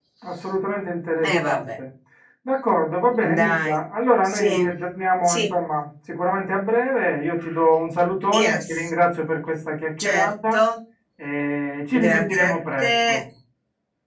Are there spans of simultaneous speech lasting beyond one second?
Yes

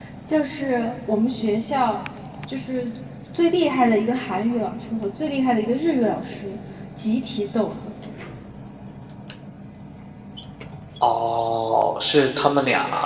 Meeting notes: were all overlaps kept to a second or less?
Yes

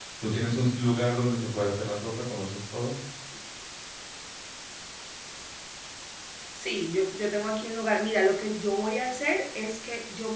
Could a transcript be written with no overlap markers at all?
Yes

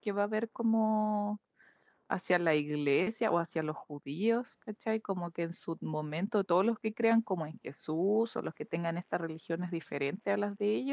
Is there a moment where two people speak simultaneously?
No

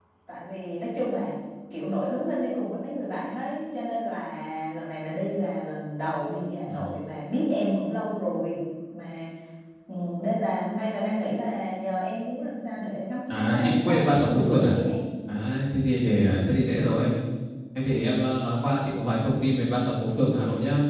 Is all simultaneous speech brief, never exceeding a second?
No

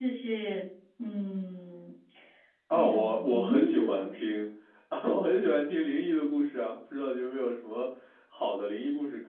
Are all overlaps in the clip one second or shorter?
No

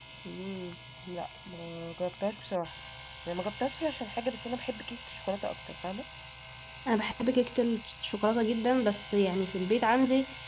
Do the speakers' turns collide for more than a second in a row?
No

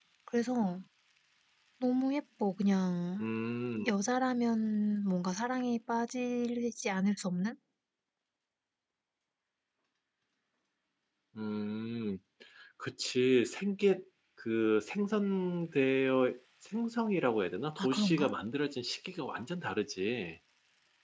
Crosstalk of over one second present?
No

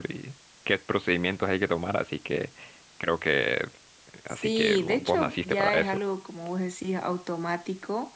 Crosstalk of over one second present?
Yes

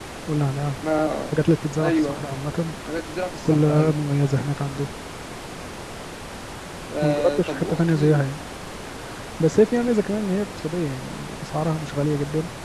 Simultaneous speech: Yes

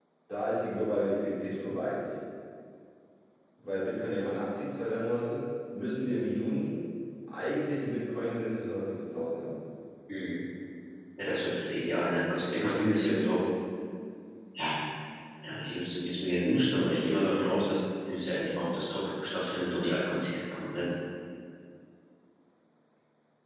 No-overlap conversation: Yes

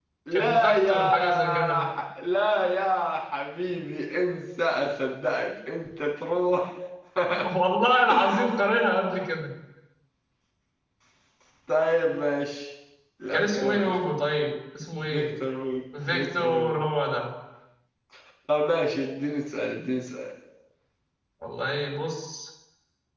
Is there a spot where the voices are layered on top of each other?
Yes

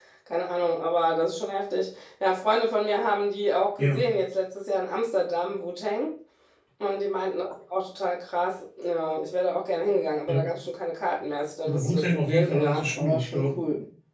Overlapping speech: Yes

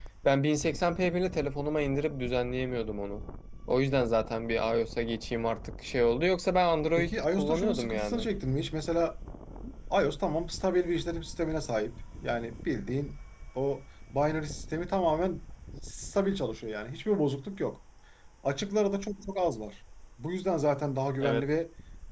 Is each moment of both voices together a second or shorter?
No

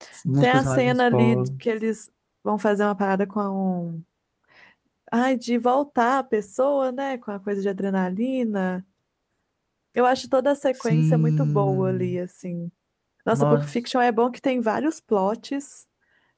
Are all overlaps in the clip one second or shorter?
No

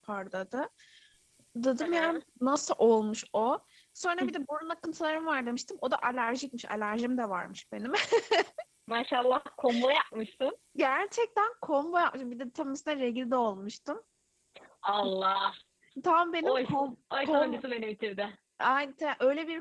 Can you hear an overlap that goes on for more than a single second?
No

